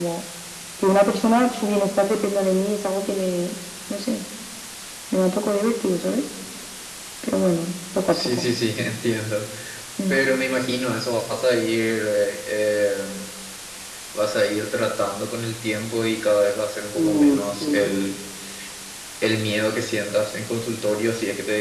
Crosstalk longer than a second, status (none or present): none